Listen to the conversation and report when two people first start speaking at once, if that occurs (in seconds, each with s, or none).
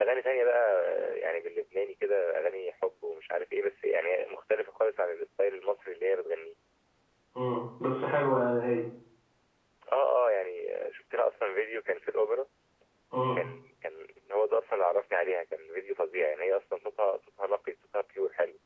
none